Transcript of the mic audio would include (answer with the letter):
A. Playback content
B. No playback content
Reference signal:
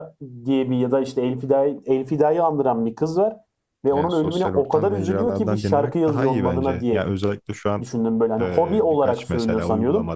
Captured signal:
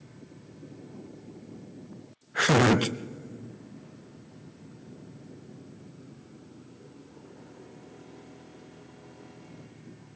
B